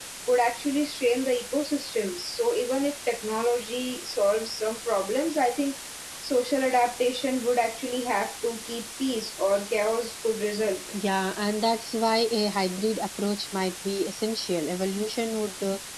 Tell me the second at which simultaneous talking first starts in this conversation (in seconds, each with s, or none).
none